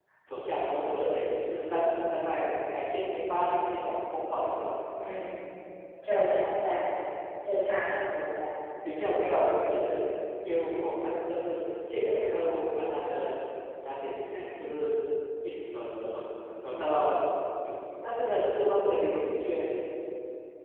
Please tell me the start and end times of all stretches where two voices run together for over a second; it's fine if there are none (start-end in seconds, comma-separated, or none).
none